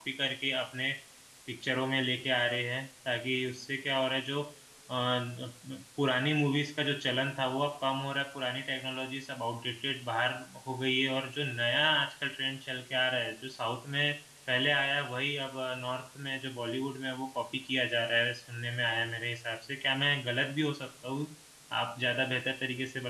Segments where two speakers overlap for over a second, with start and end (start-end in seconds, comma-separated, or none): none